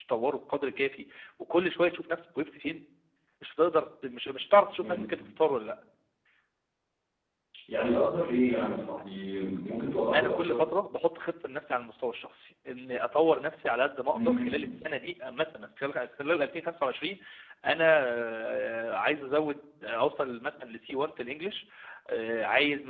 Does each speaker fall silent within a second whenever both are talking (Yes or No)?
Yes